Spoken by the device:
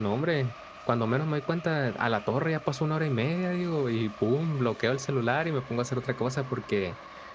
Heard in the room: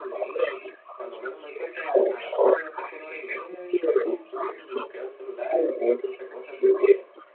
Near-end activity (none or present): none